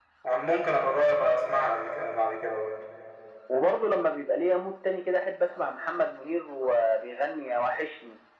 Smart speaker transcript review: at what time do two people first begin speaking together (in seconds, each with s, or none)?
none